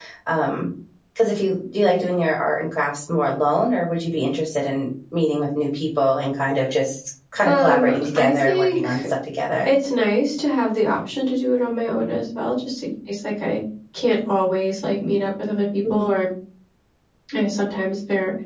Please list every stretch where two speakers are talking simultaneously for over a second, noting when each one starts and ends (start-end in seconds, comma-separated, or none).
7.4-9.0